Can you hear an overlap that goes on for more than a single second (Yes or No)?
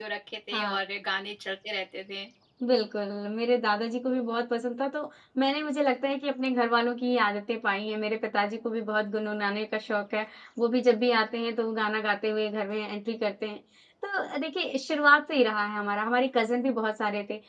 No